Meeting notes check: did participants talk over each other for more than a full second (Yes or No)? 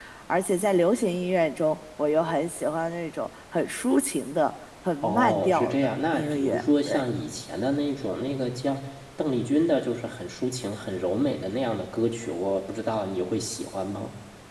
Yes